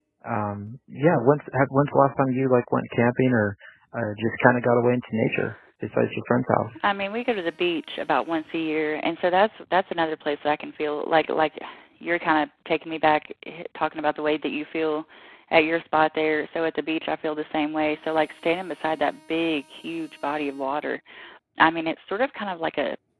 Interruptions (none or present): none